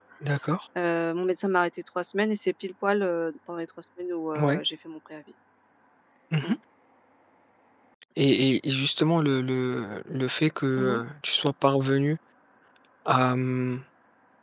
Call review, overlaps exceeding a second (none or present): none